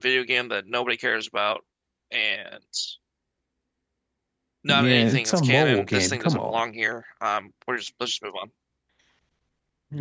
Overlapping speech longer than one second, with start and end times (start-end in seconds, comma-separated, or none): 4.7-6.6